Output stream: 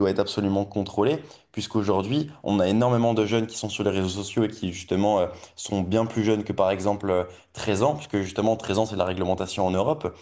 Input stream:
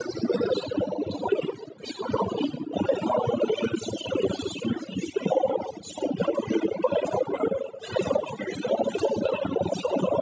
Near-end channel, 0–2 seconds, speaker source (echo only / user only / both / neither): echo only